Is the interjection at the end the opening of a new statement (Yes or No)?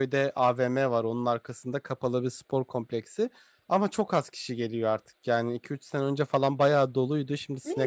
Yes